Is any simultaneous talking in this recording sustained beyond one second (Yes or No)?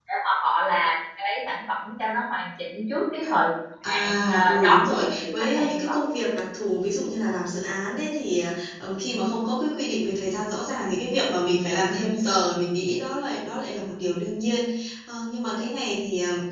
Yes